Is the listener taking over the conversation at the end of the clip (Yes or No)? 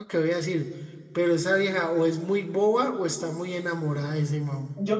Yes